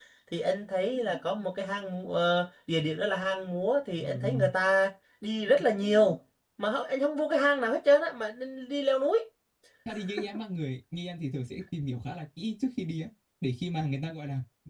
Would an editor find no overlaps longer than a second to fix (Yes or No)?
Yes